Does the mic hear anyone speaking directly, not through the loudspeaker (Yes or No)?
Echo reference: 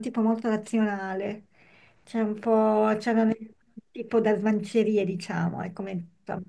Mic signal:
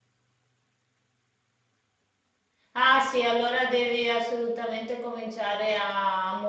Yes